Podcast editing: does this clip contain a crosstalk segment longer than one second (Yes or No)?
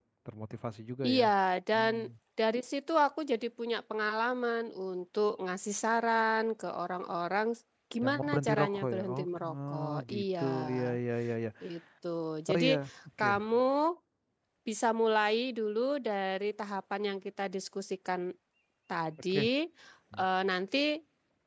Yes